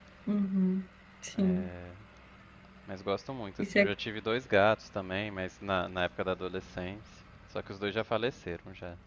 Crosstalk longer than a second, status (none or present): none